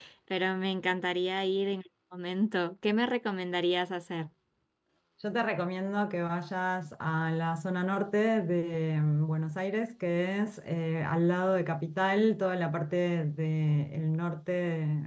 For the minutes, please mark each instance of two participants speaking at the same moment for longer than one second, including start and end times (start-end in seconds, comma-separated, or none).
none